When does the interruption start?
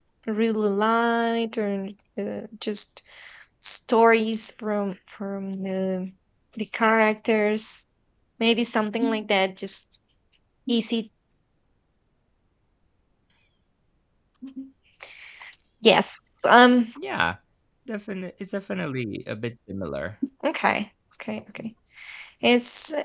none

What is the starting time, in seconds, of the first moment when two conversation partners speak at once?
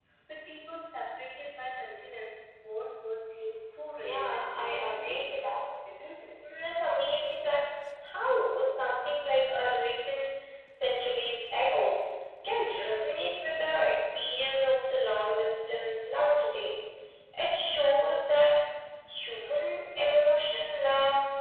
4.0 s

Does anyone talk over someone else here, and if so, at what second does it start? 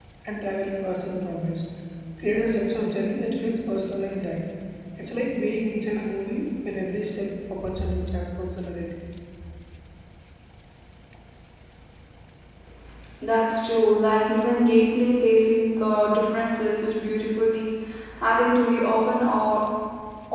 none

